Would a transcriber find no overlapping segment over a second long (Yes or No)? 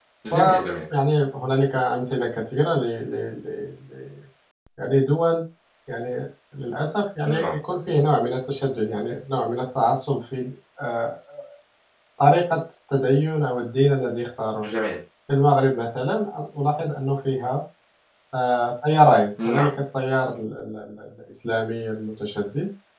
Yes